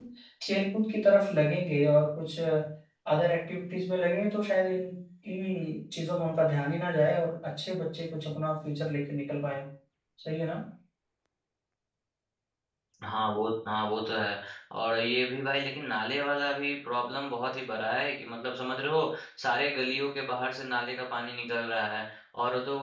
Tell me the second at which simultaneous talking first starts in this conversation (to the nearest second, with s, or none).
none